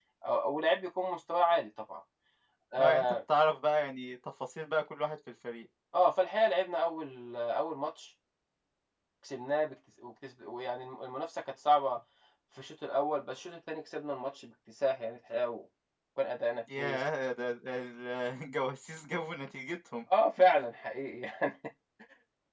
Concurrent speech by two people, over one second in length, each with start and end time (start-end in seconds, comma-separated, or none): none